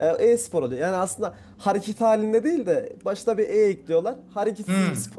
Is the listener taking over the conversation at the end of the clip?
Yes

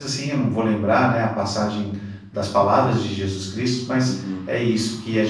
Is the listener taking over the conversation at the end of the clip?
No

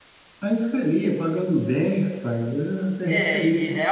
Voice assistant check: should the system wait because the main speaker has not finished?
No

